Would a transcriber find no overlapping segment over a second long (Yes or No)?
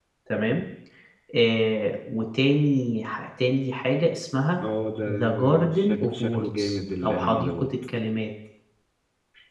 No